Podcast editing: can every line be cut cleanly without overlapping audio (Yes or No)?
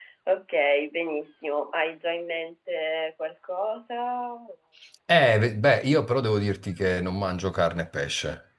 Yes